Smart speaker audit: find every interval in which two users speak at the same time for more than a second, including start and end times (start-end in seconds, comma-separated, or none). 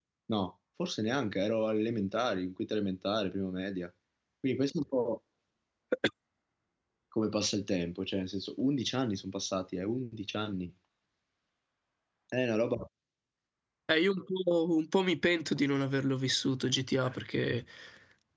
none